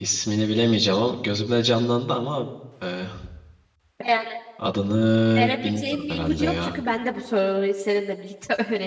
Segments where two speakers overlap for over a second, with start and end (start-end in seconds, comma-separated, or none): 5.4-6.7